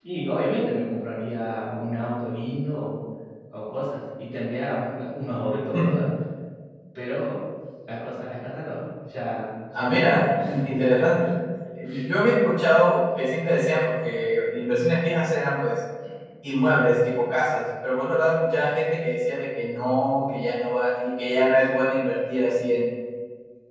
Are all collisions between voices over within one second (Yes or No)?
No